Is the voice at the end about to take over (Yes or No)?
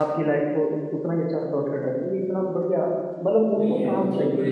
Yes